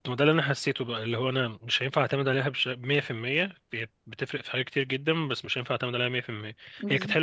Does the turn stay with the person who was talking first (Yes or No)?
Yes